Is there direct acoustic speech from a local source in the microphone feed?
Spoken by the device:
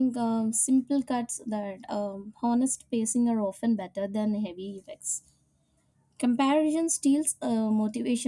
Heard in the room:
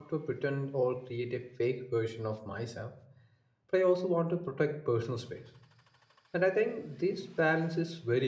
Yes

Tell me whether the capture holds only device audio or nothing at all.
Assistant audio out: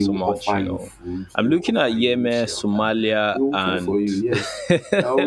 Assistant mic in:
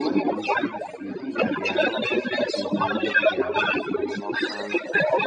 No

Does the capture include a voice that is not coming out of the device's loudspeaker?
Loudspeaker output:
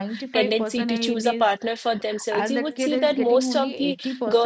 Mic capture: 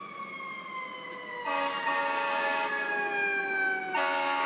No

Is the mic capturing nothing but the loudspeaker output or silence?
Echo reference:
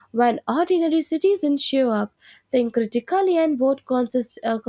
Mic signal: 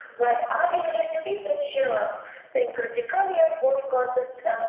Yes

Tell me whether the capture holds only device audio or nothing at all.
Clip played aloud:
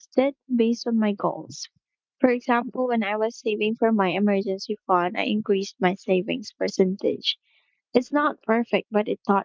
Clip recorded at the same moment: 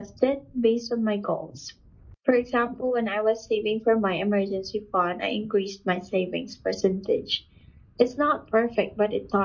Yes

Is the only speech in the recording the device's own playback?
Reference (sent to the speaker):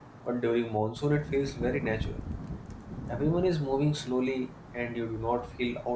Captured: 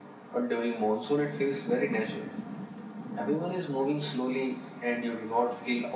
Yes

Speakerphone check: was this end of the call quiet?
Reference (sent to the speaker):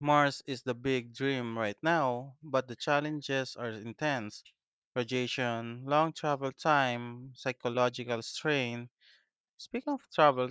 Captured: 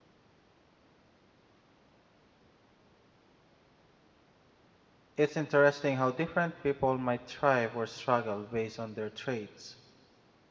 No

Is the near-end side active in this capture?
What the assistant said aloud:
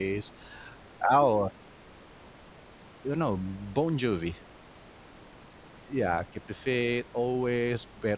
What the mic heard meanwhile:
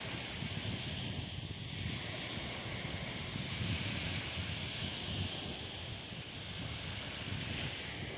No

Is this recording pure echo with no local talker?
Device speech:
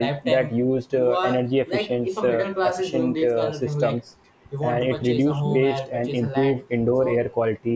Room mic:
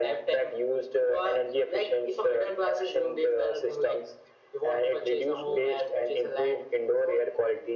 Yes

